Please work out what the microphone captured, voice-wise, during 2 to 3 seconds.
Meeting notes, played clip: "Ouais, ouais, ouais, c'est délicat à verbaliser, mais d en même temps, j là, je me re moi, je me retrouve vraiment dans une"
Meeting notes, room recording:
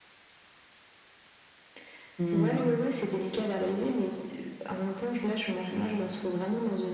both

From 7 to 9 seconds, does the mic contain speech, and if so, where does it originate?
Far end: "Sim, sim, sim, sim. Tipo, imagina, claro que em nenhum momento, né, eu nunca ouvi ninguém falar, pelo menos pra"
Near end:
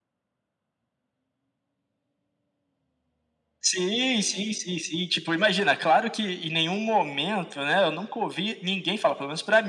echo only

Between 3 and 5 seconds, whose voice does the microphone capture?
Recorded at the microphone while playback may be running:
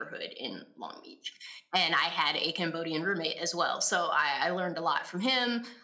echo only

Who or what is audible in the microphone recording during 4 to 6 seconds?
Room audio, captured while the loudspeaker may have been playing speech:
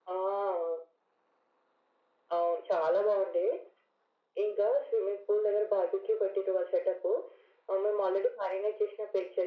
echo only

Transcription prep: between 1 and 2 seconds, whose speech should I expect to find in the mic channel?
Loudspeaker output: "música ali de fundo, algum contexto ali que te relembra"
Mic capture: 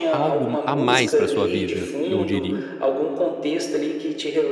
both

